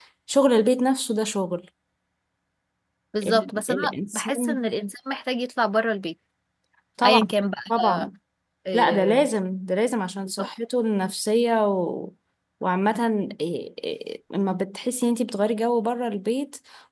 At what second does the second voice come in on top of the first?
3 s

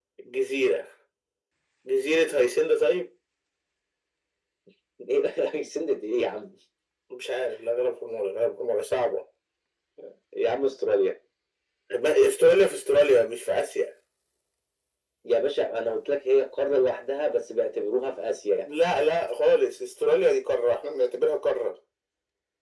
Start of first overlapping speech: none

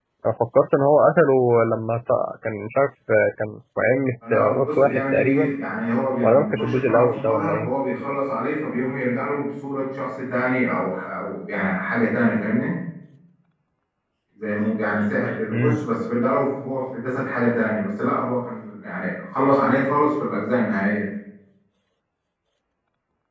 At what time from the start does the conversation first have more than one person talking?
4 s

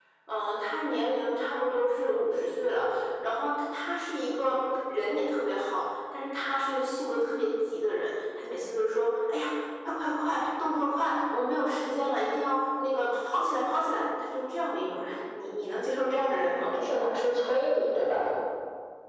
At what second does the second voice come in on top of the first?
none

